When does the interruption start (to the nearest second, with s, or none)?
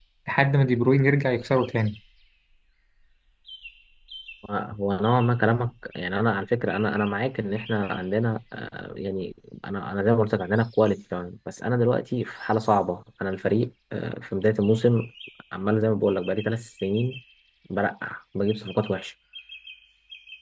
none